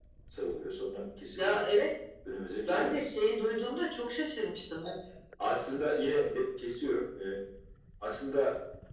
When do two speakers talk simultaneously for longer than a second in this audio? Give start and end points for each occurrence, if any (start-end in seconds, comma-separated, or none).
none